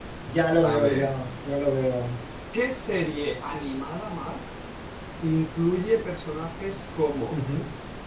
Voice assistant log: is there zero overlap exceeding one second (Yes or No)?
Yes